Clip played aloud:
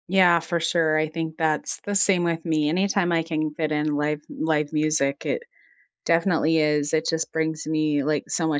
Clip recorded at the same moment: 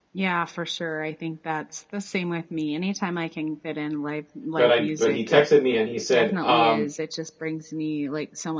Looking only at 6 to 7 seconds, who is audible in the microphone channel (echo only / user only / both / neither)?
both